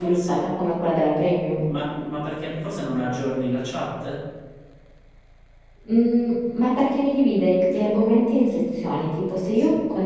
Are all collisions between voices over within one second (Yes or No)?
Yes